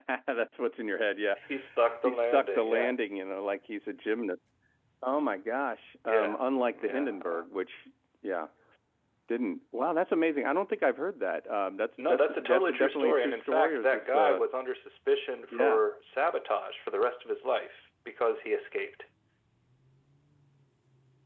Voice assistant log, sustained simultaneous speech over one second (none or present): present